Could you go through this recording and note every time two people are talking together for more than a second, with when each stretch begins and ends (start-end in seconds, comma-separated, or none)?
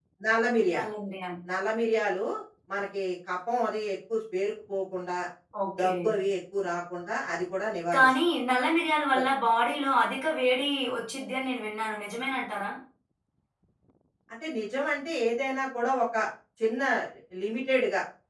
none